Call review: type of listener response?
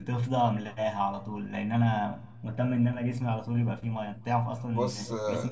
listening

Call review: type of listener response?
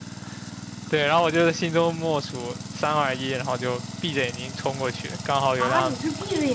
taking over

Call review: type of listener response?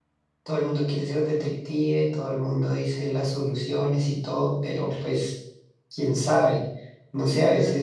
listening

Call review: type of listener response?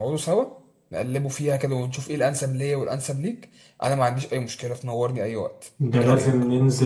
taking over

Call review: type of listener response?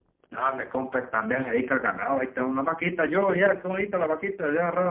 taking over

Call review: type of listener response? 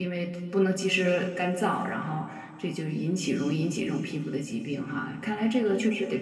listening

